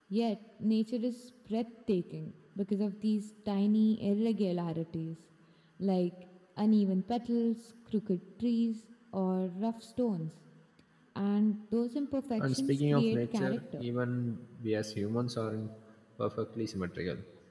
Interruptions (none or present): present